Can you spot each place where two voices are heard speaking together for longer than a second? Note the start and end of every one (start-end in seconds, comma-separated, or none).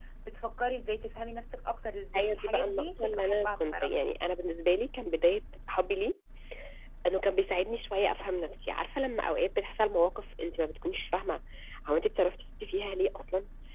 2.1-3.9